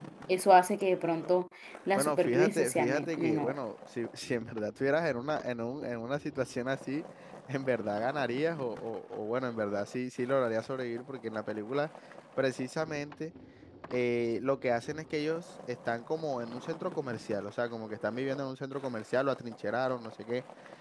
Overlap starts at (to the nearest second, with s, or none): 2 s